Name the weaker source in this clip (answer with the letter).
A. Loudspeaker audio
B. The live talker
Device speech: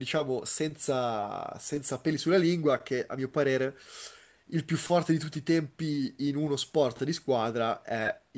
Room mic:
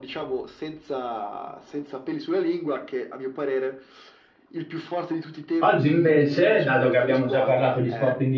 A